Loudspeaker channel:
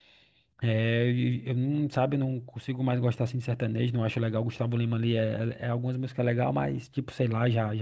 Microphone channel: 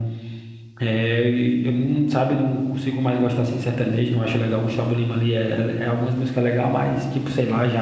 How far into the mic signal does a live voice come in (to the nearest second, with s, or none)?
none